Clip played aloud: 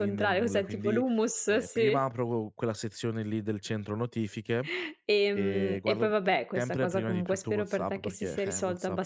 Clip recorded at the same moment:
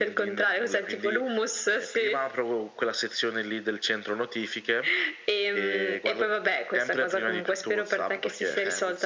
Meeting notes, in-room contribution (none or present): none